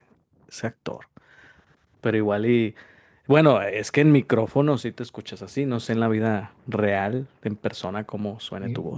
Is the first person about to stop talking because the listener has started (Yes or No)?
Yes